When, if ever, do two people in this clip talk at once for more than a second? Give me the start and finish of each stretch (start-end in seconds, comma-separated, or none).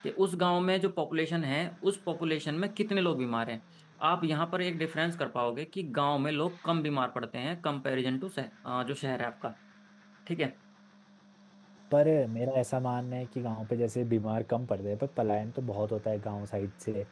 none